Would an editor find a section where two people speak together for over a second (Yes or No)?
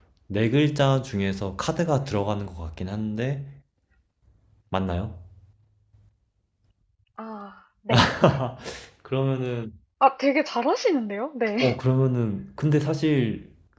No